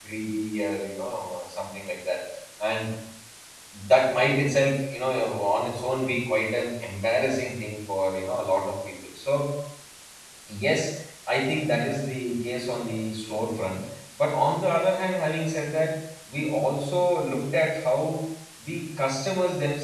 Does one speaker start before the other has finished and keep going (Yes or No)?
No